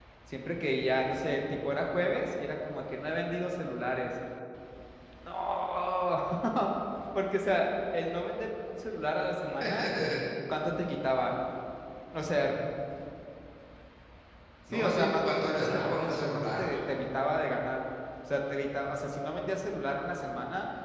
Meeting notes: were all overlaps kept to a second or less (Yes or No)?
No